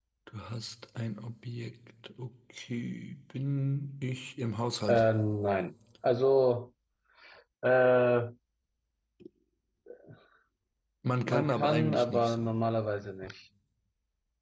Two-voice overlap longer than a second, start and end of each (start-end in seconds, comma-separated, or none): 11.3-12.5